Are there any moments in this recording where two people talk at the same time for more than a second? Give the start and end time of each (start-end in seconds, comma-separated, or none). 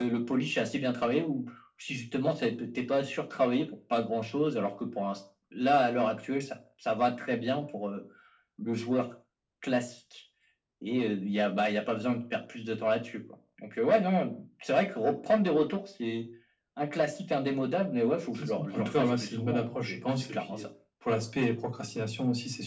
18.4-20.7